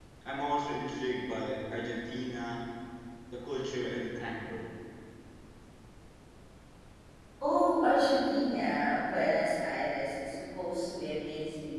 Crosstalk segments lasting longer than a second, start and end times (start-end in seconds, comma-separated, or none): none